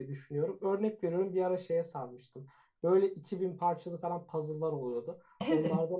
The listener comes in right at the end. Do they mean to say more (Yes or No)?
No